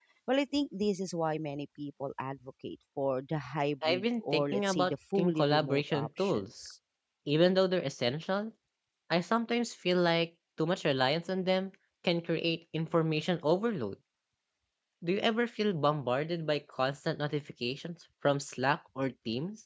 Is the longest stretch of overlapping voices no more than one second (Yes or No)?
No